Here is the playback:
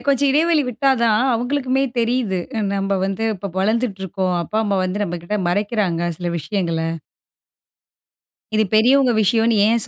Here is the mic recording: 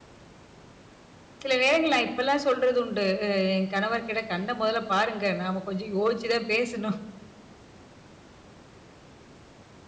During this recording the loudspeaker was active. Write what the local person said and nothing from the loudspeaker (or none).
சில நேரங்கள்ல நான் இப்பல்லாம் சொல்றது உண்டு. அ என் கணவர்க்கிட்ட கண்ண முதல பாருங்க! நாம கொஞ்சம் யோசிச்சு தான் பேசணும்